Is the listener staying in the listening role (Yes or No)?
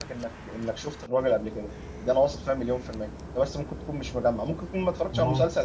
Yes